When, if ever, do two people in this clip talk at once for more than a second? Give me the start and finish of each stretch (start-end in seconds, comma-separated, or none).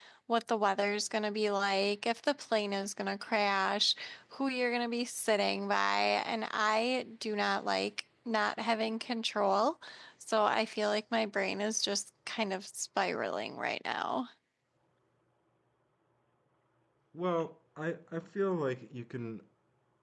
none